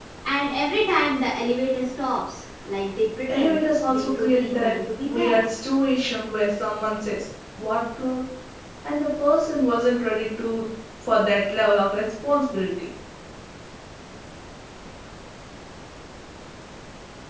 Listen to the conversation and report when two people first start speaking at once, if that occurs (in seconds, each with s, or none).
3.3 s